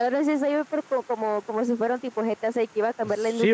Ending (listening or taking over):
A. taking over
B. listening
A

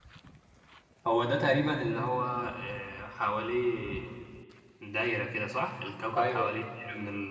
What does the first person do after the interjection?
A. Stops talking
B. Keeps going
B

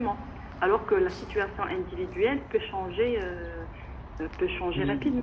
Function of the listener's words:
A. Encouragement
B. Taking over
B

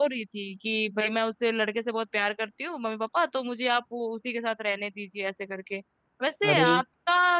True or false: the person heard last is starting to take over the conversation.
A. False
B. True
A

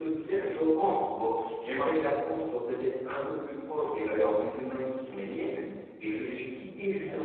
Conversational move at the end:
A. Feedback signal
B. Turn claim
A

